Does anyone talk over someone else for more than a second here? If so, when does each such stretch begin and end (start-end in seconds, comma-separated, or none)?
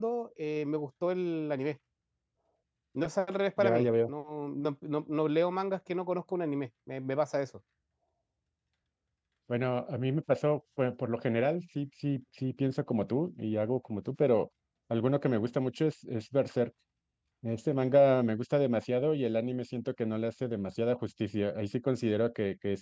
none